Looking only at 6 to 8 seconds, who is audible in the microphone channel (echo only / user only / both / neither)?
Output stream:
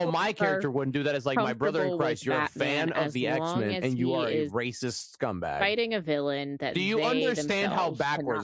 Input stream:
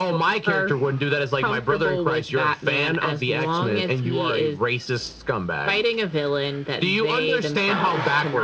echo only